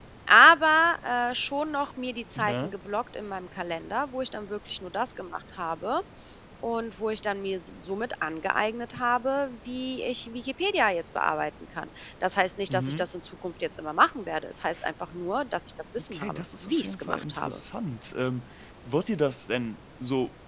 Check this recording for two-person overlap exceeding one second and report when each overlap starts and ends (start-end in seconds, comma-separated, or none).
16.1-17.6